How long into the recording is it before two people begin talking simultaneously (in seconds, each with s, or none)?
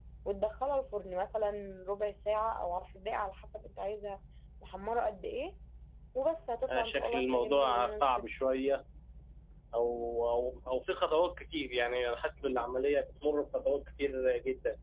6.7 s